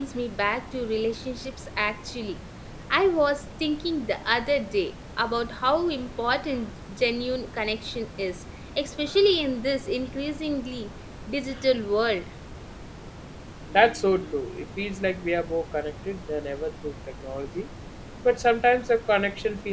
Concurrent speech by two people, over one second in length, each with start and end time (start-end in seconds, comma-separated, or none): none